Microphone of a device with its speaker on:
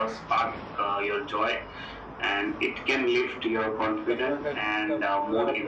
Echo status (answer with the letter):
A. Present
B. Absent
A